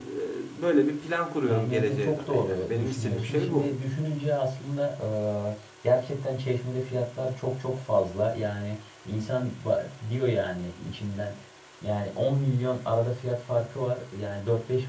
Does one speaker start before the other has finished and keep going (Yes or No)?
Yes